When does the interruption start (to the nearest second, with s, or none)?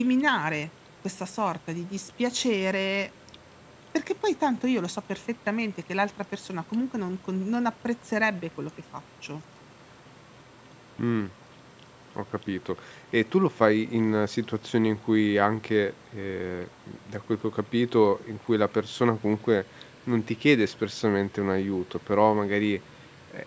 none